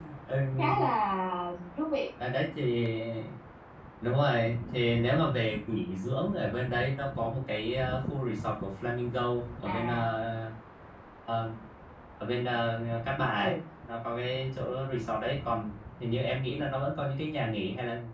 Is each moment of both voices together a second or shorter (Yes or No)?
Yes